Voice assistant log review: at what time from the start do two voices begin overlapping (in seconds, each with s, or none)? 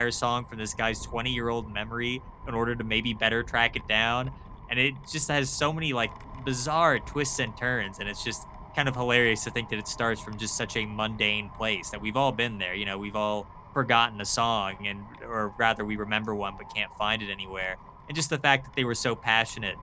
none